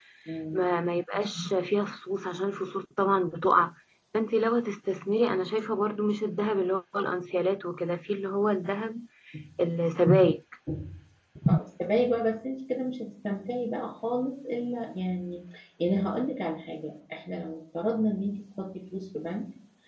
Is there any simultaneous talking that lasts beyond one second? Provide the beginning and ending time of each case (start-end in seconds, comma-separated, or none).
none